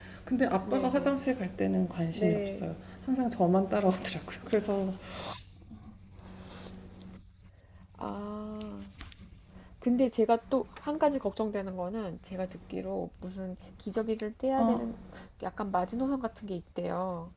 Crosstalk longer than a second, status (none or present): none